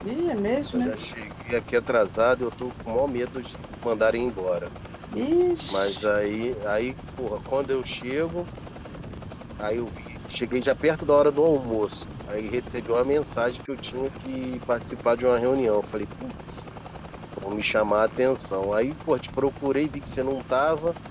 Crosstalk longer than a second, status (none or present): none